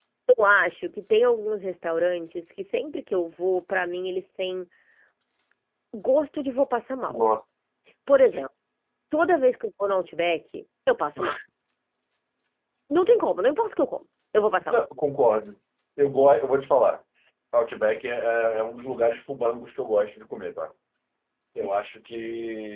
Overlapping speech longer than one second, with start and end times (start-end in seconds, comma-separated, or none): none